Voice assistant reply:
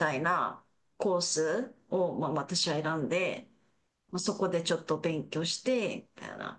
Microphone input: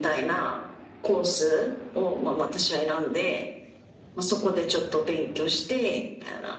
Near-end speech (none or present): none